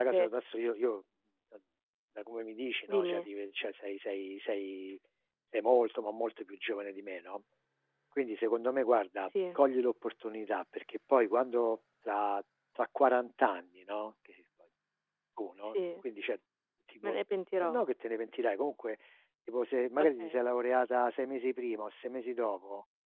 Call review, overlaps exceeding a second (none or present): none